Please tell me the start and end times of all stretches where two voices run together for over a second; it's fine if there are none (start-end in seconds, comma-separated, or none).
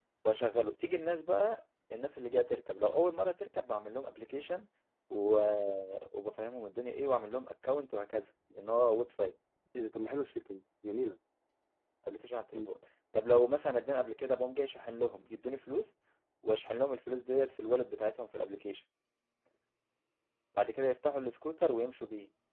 none